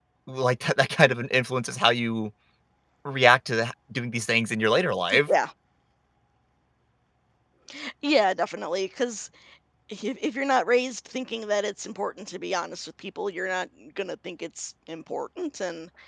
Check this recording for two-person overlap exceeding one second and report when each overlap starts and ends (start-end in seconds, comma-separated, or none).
none